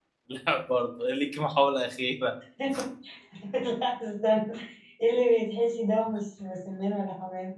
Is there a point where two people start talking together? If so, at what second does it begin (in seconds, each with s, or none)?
none